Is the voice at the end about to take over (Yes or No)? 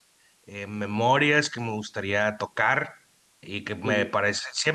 No